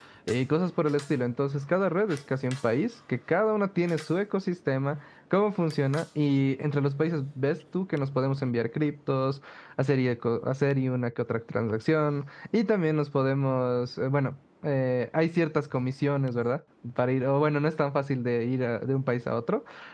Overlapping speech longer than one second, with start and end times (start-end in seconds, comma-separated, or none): none